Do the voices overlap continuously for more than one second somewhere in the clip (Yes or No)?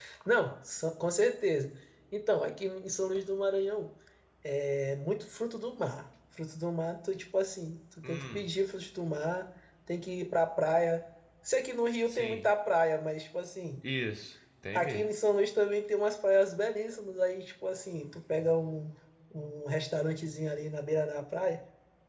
No